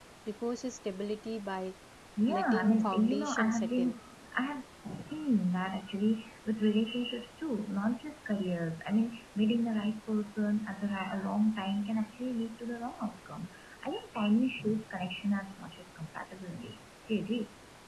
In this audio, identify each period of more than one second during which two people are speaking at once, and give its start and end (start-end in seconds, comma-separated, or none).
2.3-3.9